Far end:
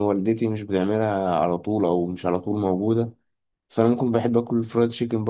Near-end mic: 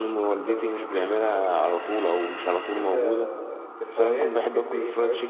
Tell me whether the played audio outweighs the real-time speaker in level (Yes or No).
Yes